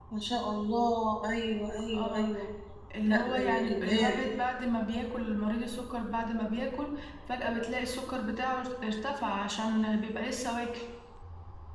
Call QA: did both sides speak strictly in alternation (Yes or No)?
No